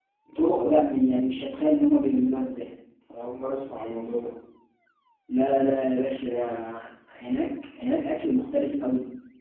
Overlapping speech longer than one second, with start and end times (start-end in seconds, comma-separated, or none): none